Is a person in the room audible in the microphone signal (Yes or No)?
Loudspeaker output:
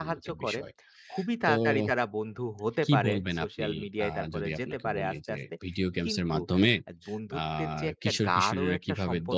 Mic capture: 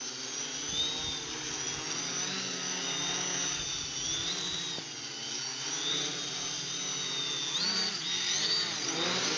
No